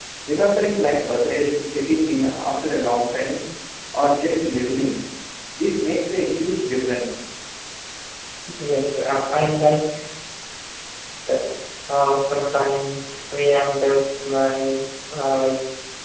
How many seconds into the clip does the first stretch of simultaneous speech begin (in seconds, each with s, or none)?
none